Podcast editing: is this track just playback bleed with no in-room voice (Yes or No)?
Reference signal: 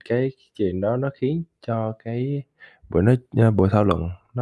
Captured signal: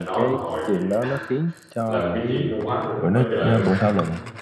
No